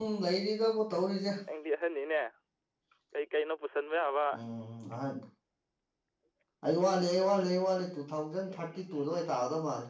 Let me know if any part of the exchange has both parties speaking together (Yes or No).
No